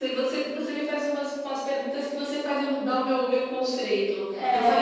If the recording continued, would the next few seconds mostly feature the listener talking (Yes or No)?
No